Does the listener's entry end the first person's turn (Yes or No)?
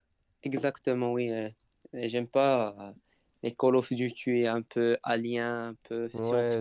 Yes